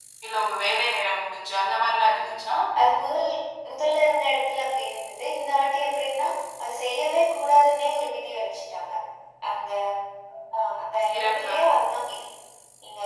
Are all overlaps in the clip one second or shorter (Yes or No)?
Yes